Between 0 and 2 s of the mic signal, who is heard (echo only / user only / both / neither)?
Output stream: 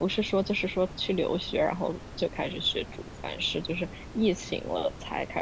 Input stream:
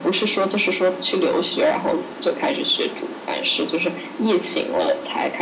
echo only